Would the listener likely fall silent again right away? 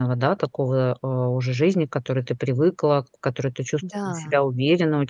Yes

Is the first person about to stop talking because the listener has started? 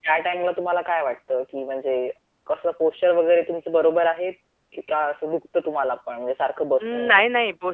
Yes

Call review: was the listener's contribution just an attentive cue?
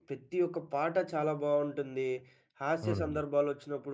Yes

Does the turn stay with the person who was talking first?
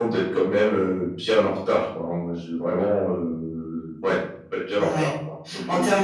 No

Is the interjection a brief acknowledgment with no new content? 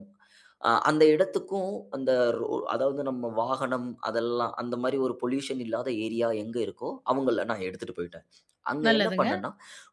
Yes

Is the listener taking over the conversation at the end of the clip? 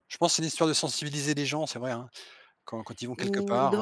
Yes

